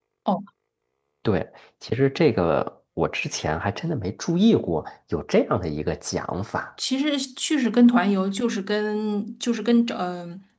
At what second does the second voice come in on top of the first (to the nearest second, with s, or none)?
none